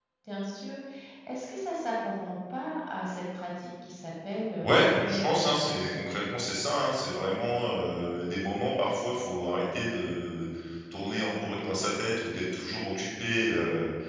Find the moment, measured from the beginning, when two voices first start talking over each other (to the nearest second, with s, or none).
5 s